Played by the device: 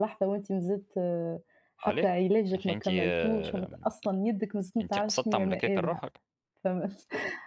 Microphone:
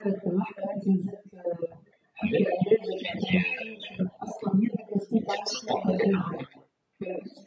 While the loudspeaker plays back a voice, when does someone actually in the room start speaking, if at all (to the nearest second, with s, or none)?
none